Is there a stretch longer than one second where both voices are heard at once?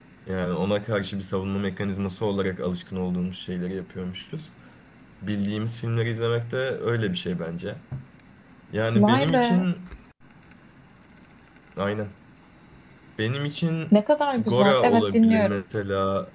Yes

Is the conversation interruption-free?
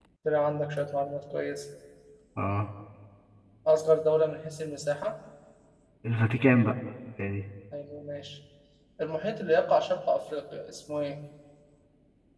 Yes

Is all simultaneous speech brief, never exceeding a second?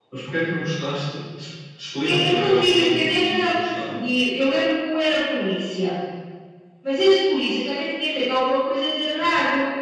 No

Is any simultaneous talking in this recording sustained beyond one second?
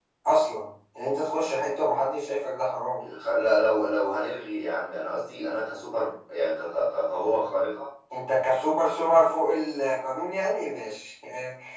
No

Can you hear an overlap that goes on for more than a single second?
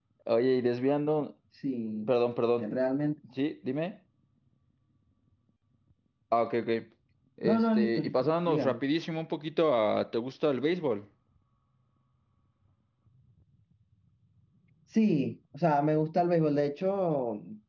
Yes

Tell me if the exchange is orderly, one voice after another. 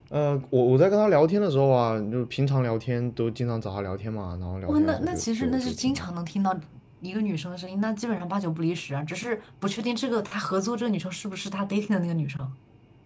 No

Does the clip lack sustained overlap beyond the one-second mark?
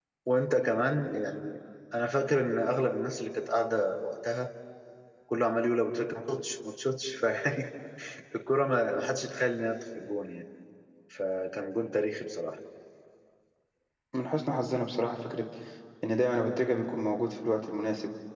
Yes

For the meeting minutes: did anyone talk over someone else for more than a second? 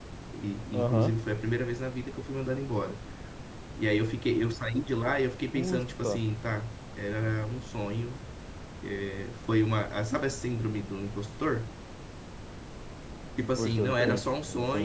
Yes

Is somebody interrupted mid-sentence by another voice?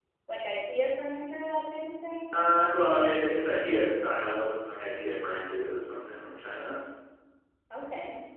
No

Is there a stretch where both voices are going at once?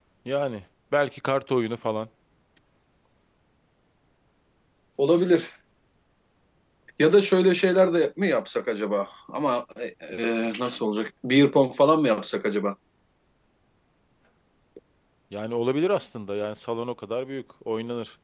No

